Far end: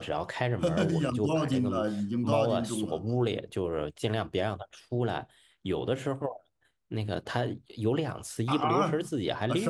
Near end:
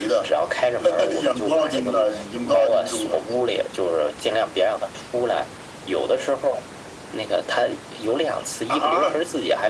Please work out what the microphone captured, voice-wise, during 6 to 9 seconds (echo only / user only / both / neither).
echo only